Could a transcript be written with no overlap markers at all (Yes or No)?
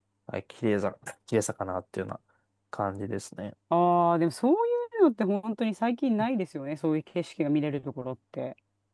Yes